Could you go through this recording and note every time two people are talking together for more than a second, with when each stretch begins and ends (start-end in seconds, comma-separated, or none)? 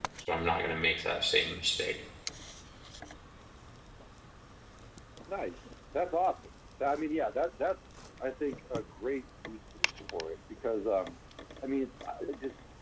none